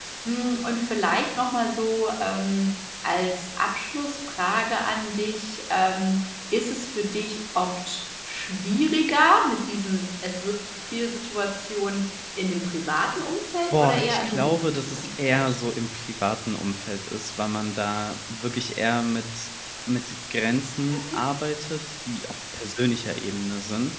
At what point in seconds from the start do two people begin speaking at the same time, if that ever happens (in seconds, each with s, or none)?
13.7 s